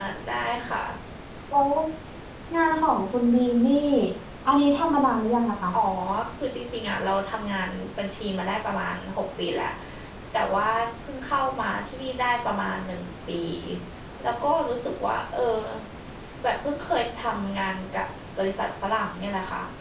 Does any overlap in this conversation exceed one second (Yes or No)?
No